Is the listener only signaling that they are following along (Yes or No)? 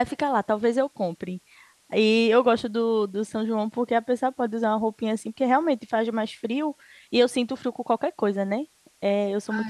No